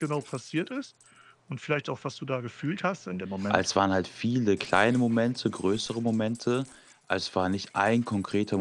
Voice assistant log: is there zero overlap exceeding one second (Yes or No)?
Yes